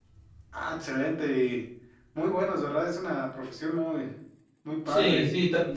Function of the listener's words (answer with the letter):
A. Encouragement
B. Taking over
B